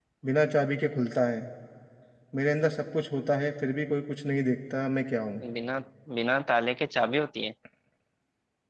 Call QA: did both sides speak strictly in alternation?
Yes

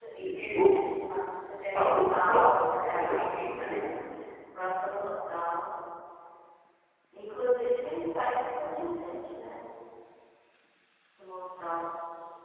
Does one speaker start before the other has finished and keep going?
Yes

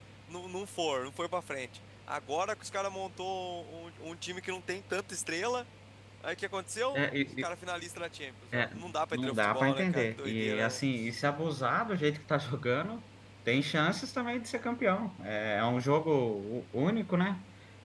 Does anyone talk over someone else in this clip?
Yes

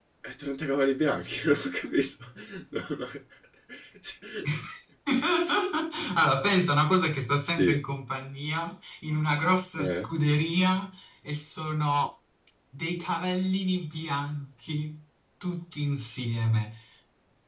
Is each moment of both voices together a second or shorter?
Yes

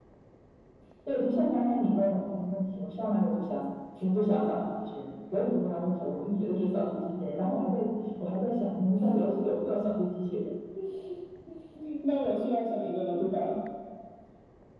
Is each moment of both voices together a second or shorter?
Yes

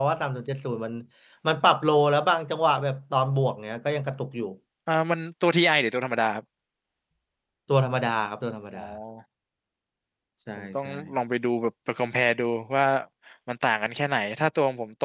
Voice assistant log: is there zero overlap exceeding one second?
Yes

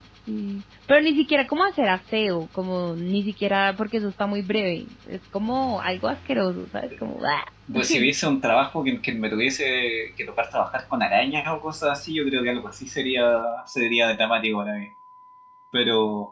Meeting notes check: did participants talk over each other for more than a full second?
No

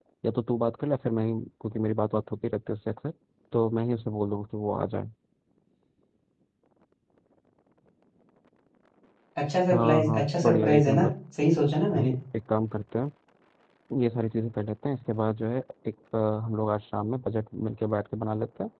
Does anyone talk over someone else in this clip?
Yes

